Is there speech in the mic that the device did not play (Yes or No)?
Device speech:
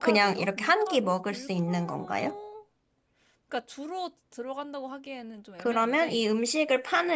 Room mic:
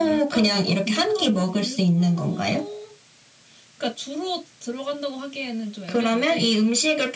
No